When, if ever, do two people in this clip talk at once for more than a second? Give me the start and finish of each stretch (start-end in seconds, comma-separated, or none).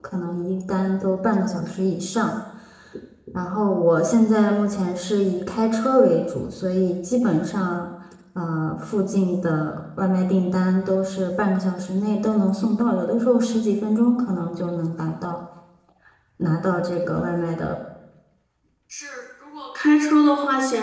none